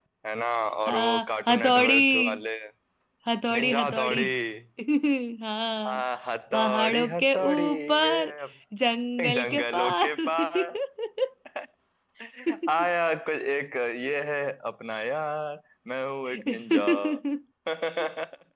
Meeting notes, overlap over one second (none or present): present